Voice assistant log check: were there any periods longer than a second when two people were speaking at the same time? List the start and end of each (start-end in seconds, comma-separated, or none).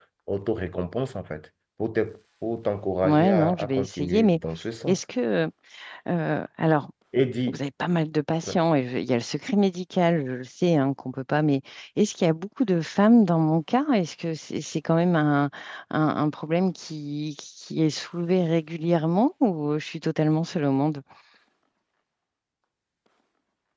3.0-4.4